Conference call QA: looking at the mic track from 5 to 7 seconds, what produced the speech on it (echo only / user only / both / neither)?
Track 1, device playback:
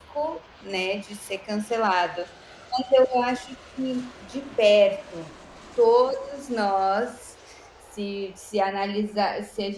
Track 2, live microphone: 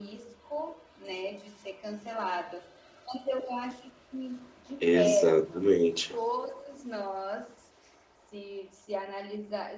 both